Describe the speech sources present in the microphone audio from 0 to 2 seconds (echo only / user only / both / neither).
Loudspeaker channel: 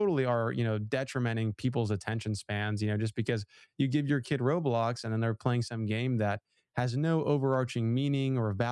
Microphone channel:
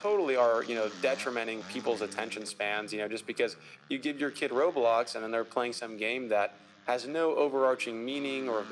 echo only